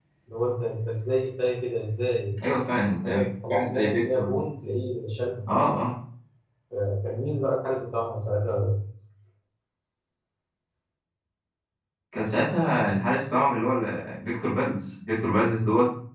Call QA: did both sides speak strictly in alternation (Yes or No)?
No